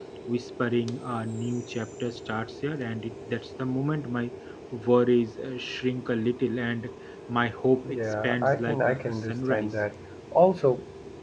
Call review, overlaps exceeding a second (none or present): present